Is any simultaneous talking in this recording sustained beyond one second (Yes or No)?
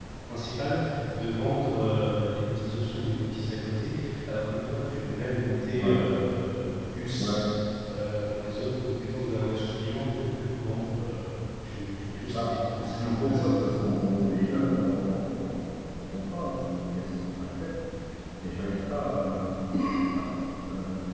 Yes